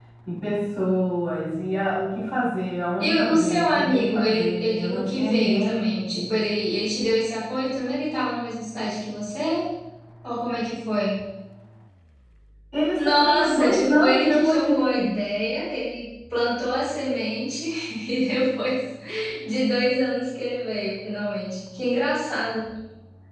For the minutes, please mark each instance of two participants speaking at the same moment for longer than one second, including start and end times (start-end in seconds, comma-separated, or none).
3.0-6.3, 12.9-15.1